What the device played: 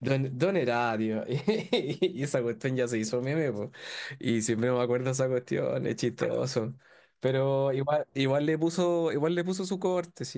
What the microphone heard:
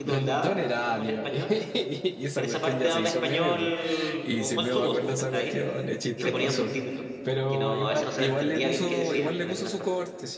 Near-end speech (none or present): present